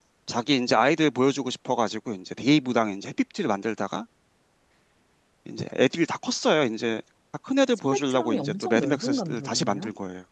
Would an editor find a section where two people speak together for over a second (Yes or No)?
Yes